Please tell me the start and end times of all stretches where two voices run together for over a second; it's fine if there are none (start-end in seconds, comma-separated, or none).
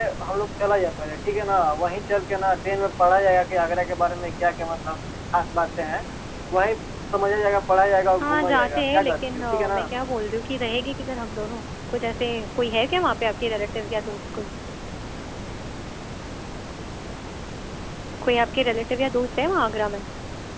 8.2-9.8